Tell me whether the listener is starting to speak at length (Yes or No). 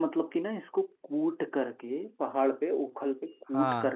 No